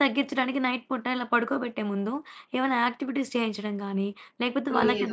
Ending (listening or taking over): listening